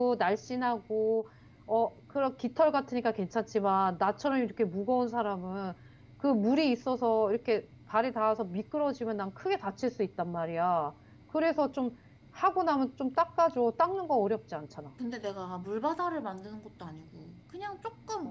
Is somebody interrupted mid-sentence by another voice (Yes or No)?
No